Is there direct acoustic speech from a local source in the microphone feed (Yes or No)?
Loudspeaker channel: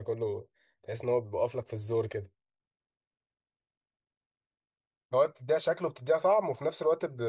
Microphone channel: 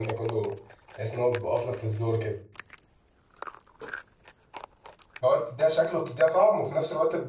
No